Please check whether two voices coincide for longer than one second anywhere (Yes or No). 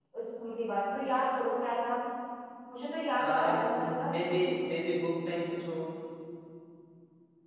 Yes